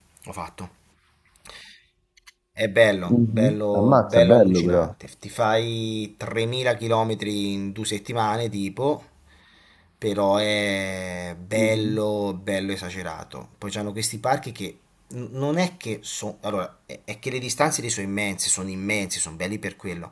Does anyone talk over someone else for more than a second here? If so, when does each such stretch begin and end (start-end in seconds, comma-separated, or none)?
3.1-4.9